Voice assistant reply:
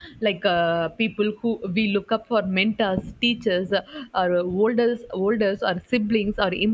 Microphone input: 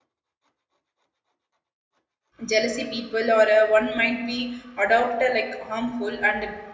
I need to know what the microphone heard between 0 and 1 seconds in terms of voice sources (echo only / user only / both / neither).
neither